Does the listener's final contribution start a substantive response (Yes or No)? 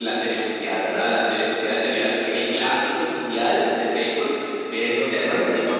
No